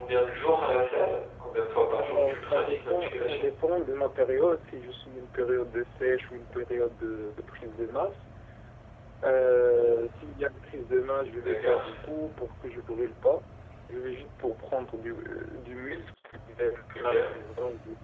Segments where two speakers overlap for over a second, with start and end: 2.0-3.5

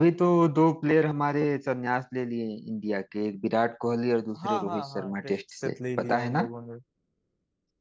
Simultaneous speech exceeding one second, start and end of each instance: 4.4-6.5

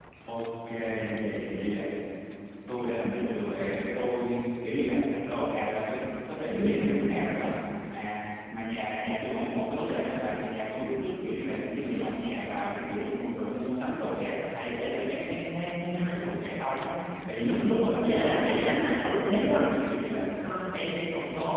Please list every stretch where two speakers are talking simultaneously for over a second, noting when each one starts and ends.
17.9-19.6

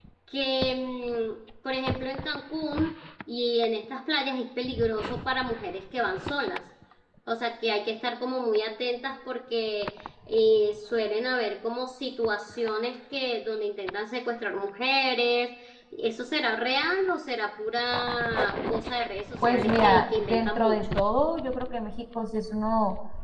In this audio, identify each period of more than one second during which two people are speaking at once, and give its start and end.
19.5-21.0

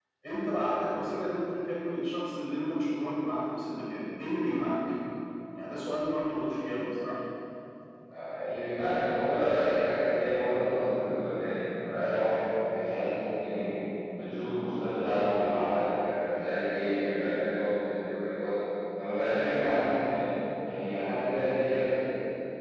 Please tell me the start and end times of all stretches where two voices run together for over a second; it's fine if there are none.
none

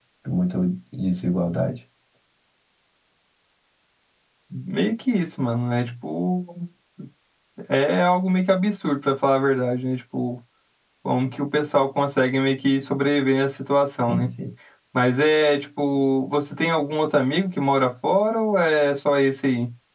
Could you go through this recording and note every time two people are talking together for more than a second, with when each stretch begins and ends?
none

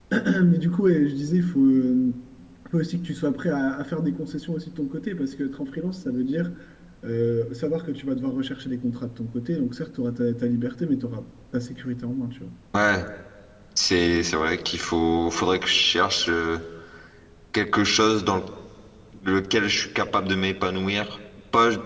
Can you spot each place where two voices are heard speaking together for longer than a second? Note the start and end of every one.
none

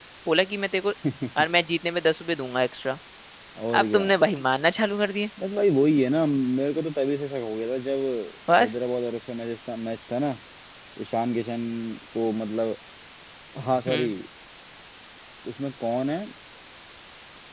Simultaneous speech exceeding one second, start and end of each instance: none

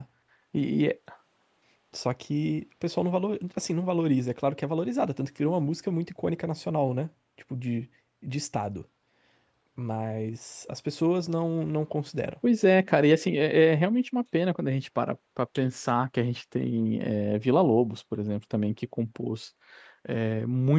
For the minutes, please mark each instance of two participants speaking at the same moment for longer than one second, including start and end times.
none

